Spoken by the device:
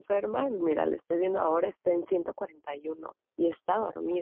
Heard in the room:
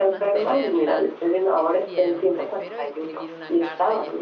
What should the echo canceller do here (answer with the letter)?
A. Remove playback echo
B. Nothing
A